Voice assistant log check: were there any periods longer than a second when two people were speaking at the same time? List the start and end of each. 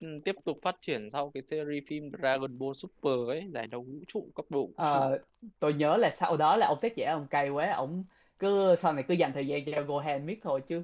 none

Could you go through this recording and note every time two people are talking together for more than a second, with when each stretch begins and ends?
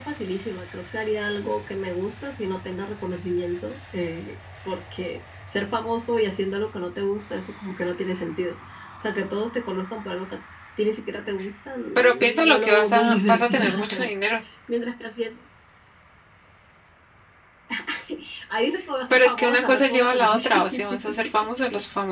11.9-14.1, 19.1-21.0

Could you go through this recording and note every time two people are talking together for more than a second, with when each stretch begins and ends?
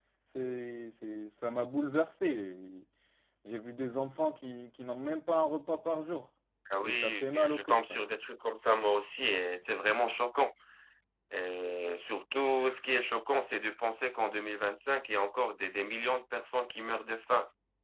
6.8-8.0

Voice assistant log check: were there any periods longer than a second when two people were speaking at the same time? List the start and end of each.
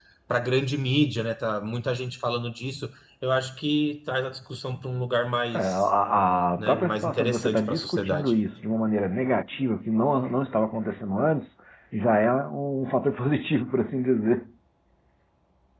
6.6-8.3

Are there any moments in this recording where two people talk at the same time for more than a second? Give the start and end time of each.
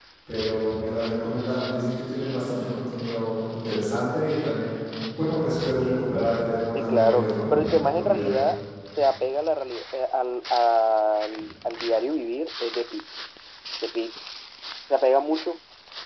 6.8-8.3

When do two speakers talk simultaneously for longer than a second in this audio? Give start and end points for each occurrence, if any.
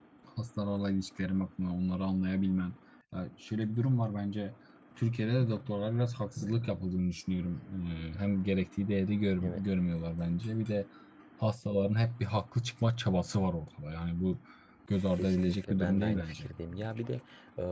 15.2-16.5

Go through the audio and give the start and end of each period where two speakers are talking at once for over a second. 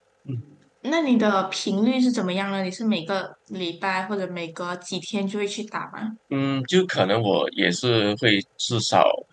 none

